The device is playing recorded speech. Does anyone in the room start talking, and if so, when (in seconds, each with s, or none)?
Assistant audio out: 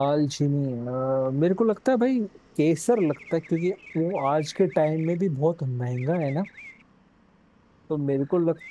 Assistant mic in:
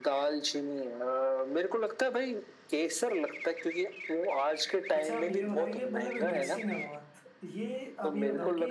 4.9 s